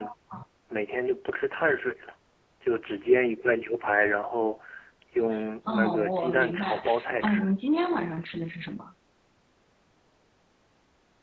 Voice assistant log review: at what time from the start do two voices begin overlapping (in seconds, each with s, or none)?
5.7 s